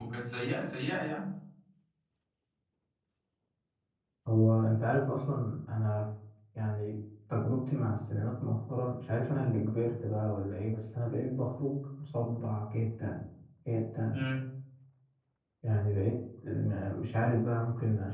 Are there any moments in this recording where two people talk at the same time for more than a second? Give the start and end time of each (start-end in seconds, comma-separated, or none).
none